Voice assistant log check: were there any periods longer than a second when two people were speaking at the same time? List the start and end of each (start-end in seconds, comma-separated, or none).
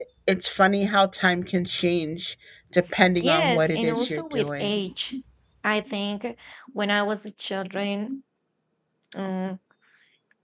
3.2-4.8